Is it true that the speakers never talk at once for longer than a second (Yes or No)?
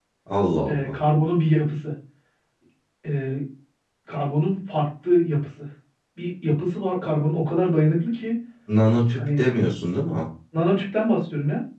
Yes